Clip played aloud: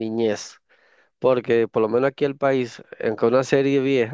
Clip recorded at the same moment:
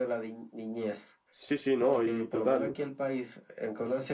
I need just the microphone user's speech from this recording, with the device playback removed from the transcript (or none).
Sí, sí, no, y total.